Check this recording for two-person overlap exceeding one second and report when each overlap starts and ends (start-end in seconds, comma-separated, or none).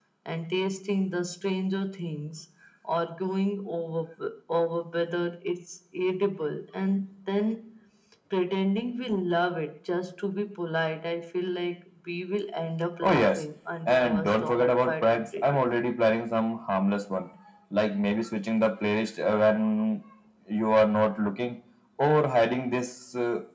13.9-15.6